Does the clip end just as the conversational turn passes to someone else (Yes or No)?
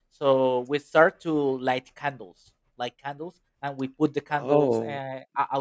No